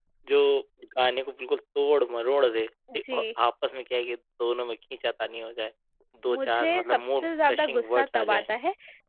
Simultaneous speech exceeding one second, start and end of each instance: 6.3-8.5

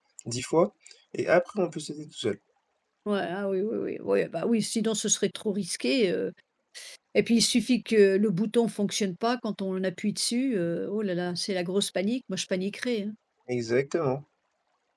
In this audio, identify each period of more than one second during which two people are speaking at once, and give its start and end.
none

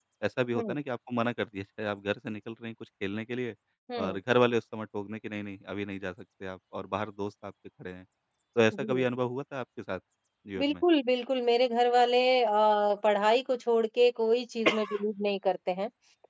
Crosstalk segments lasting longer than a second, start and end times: none

